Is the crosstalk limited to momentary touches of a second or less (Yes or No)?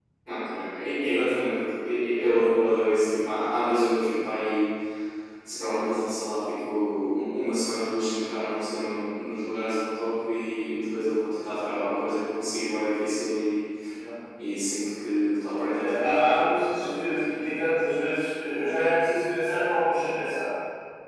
No